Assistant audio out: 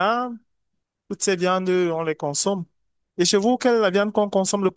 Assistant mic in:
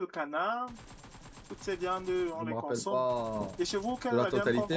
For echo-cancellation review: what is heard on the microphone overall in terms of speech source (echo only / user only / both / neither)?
both